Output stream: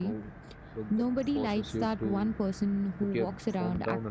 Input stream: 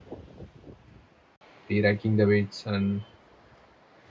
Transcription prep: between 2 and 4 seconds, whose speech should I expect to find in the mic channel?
user only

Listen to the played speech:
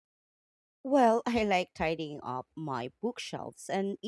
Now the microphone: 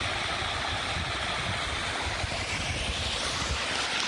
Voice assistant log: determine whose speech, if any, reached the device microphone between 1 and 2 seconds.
neither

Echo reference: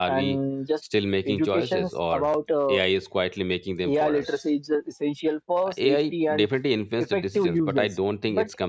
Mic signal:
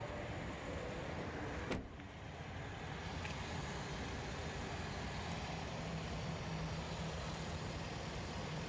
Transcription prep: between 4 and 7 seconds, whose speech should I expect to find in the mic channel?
neither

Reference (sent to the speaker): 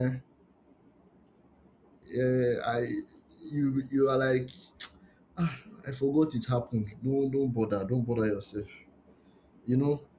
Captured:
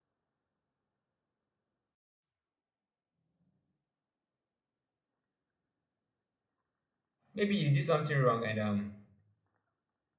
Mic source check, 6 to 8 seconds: user only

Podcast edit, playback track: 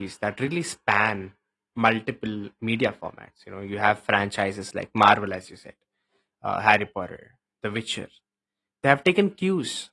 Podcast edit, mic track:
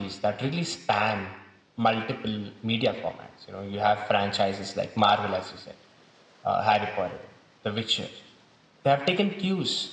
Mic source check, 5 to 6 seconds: echo only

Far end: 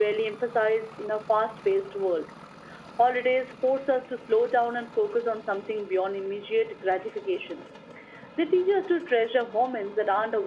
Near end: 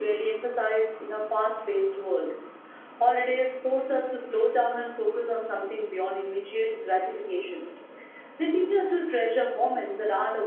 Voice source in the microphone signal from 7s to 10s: echo only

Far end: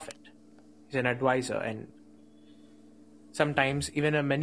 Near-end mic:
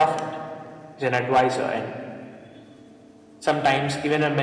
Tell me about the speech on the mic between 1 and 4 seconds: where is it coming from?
echo only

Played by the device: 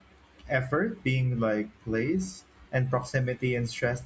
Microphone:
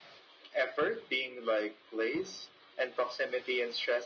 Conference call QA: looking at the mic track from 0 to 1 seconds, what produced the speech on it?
echo only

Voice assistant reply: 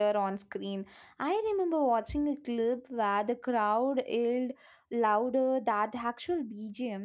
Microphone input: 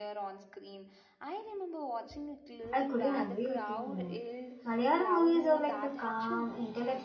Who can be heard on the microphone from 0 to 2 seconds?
echo only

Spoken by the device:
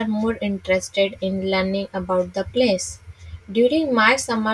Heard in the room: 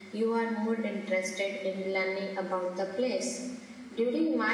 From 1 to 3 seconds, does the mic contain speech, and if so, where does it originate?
echo only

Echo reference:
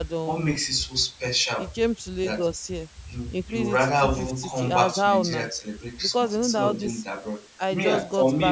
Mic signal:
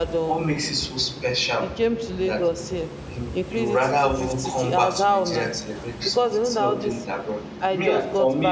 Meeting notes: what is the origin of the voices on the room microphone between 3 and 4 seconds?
echo only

